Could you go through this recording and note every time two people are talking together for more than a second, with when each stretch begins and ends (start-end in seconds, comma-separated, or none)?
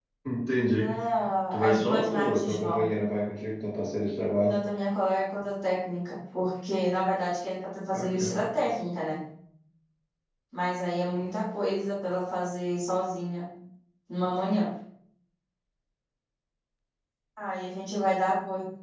1.5-2.8